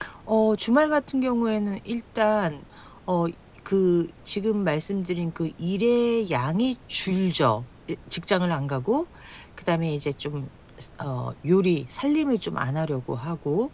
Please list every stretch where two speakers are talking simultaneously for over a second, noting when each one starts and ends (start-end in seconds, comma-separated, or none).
none